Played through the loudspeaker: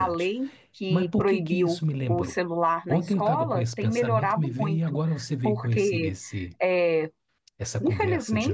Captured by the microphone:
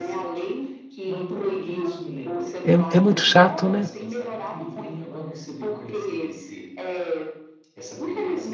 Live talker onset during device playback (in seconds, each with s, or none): 2.6 s